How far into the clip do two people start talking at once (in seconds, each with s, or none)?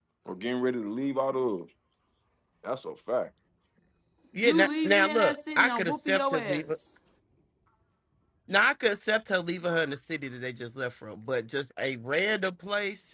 4.4 s